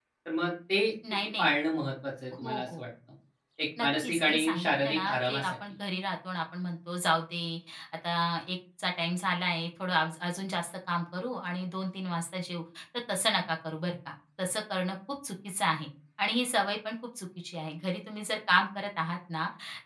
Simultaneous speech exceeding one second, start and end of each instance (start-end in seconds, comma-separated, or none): 3.8-5.5